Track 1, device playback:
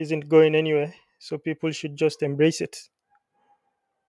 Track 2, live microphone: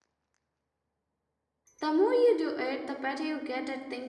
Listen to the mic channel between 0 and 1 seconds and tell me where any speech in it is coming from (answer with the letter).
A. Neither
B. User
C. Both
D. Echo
A